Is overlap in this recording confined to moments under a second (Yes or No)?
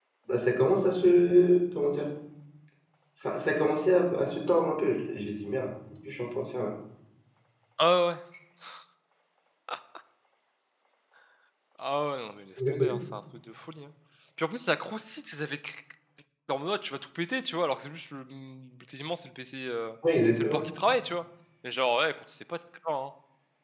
Yes